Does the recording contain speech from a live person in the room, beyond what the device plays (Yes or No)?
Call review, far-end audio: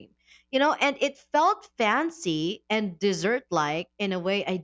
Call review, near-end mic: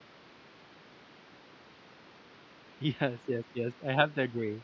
Yes